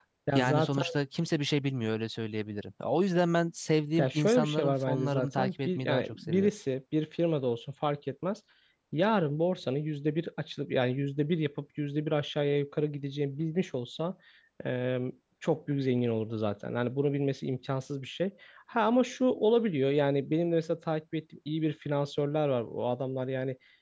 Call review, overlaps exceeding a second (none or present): present